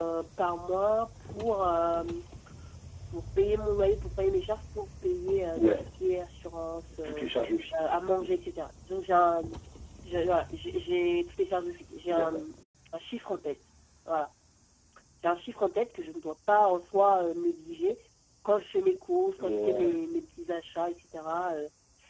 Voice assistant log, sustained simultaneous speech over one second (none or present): none